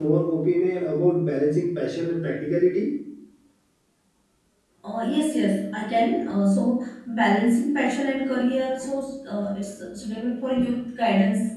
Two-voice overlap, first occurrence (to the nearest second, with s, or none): none